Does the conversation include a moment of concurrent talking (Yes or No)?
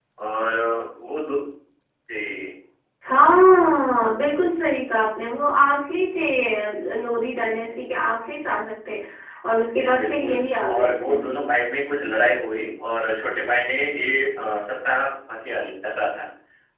Yes